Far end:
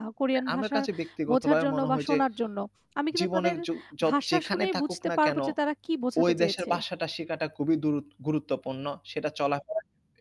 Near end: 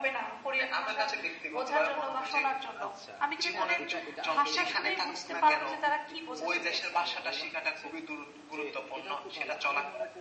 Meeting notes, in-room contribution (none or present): present